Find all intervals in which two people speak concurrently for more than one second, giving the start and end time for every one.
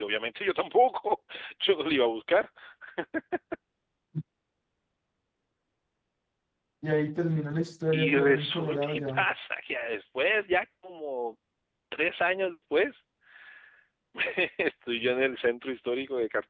7.9-9.2

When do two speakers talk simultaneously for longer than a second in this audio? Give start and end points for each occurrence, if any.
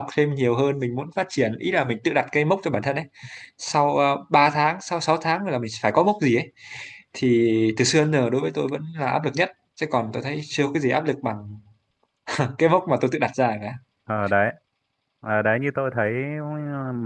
none

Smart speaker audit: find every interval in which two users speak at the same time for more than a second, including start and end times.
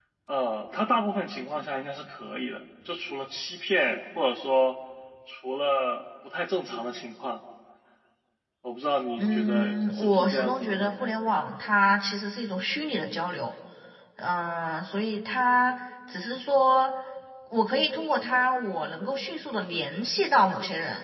9.2-10.9

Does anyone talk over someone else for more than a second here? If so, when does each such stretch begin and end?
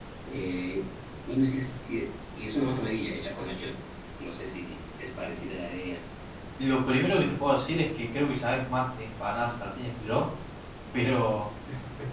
none

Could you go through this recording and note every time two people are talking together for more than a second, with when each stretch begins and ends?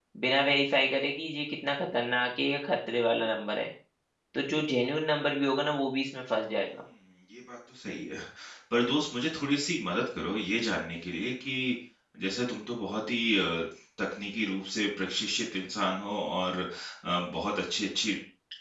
none

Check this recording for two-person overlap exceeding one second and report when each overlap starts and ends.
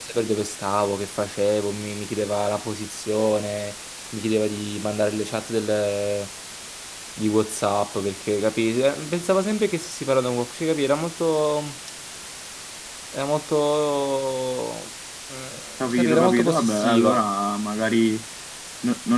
15.9-17.2

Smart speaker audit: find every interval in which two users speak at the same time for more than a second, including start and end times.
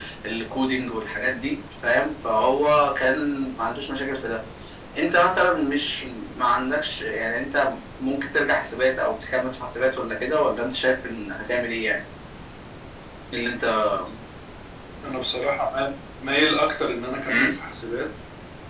none

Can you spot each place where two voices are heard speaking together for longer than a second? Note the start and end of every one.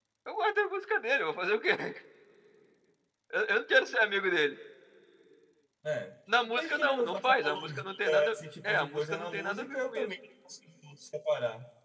6.6-10.1

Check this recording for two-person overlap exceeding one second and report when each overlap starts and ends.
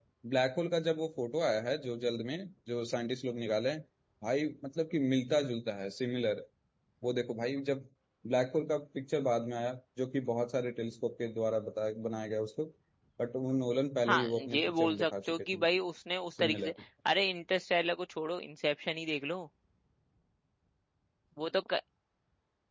14.1-15.6

